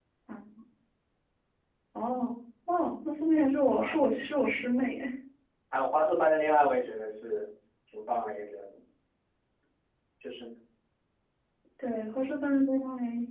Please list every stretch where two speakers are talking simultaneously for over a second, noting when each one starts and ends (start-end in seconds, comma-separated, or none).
none